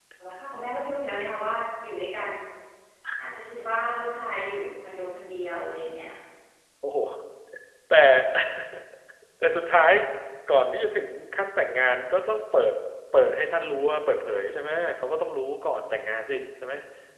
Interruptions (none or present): none